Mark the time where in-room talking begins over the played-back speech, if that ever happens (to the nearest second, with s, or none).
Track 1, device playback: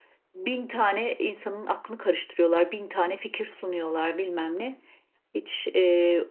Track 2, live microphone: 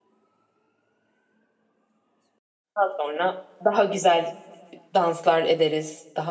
3 s